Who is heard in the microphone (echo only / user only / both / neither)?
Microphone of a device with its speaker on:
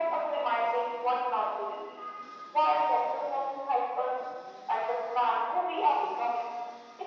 echo only